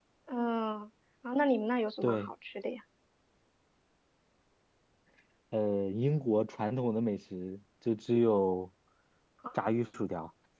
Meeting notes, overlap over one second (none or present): none